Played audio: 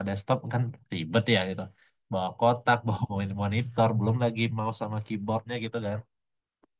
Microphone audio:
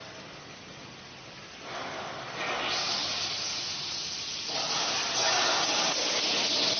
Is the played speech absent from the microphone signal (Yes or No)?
Yes